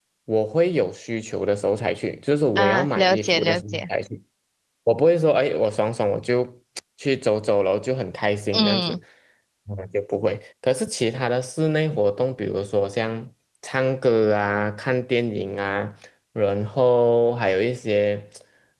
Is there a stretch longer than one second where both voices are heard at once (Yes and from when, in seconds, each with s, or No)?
Yes, from 2.5 s